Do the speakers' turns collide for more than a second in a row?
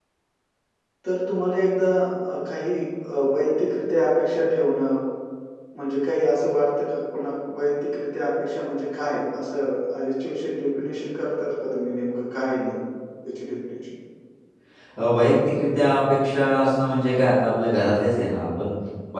No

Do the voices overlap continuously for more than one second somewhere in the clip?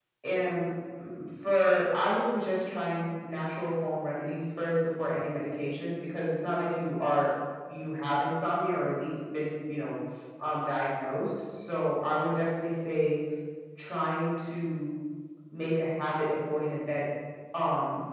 No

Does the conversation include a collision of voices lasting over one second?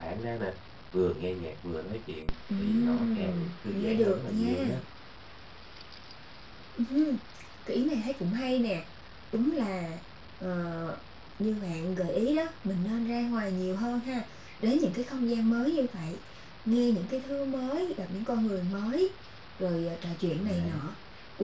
Yes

